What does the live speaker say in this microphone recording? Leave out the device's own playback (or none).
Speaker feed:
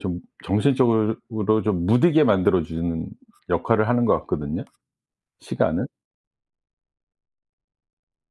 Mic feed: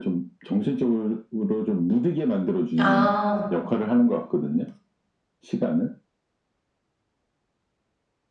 아.